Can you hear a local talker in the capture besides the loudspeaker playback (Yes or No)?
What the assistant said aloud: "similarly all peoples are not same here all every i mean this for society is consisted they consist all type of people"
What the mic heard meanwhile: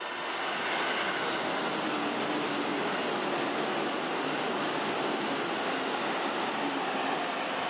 No